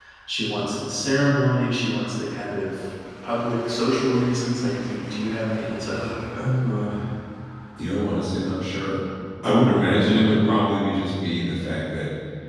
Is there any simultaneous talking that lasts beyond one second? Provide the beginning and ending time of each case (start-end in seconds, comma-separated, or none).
none